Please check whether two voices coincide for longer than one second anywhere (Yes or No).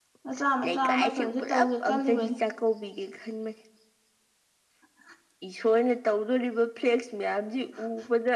Yes